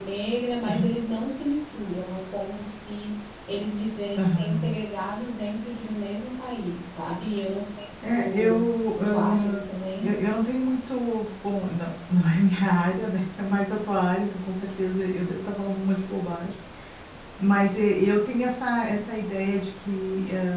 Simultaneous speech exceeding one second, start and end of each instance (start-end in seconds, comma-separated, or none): 8.0-9.6